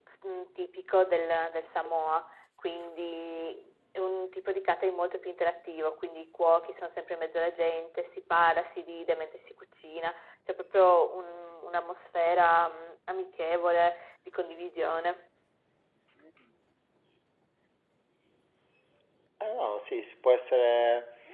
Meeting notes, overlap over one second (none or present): none